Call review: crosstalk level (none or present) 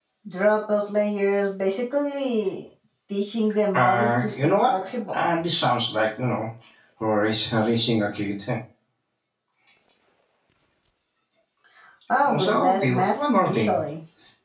present